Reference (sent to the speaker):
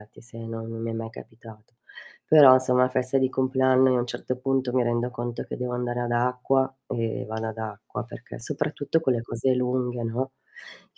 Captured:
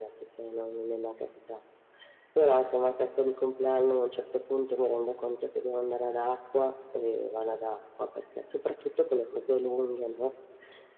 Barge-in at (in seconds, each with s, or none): none